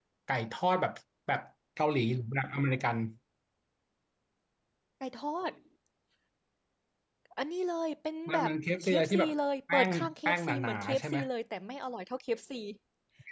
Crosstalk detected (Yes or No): Yes